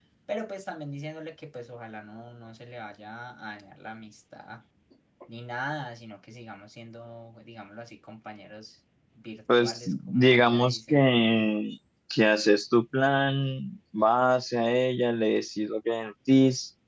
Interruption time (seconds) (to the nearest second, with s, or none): 9 s